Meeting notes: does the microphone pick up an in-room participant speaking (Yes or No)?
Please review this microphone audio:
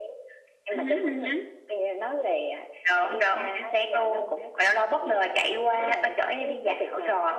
No